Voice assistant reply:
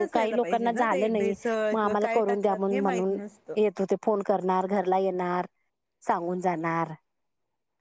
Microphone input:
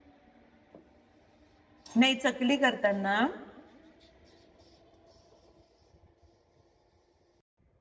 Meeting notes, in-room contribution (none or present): present